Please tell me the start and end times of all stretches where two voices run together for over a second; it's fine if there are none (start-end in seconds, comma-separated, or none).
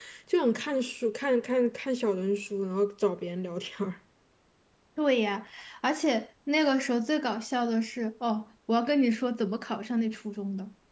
none